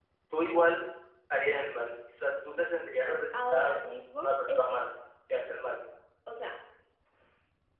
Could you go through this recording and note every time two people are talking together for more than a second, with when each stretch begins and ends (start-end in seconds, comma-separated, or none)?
3.0-4.8